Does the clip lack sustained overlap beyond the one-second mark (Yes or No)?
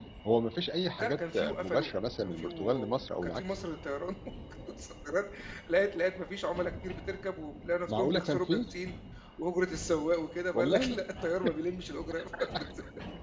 No